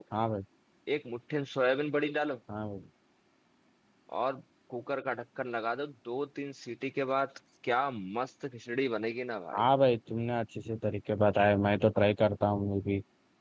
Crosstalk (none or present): none